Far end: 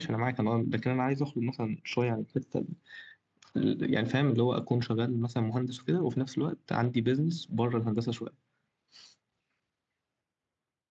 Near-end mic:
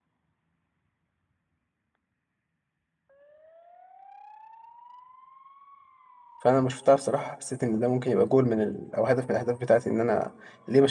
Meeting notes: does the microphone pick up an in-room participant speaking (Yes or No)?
Yes